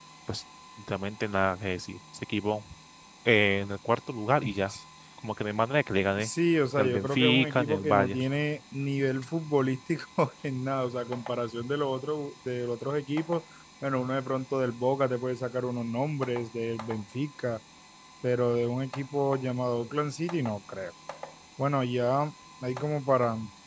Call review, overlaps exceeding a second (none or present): present